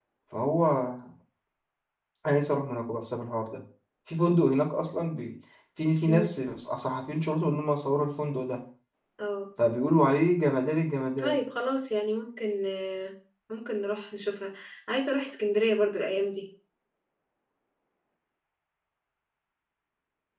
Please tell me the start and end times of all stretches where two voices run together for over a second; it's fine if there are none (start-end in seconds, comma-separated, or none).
none